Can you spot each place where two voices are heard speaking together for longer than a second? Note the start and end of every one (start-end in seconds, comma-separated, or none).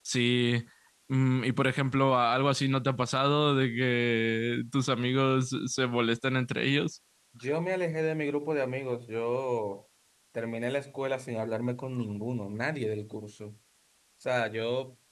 none